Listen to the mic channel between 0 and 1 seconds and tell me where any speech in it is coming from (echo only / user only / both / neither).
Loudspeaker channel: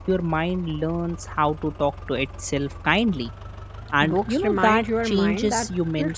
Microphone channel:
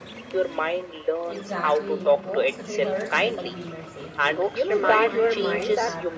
echo only